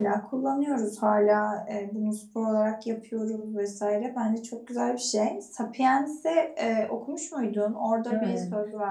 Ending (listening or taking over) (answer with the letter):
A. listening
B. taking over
A